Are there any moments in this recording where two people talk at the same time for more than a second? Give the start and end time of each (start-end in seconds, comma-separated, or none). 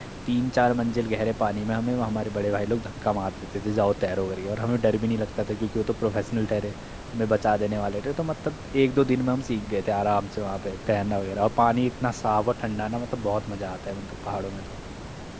none